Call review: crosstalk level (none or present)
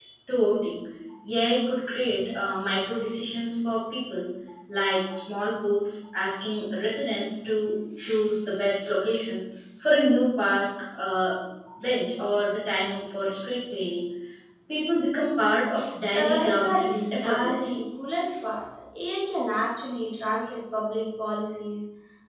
present